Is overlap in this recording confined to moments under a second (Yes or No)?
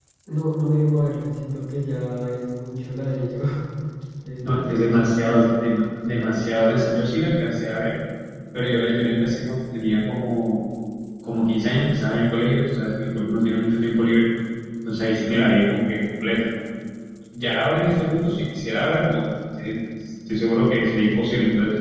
No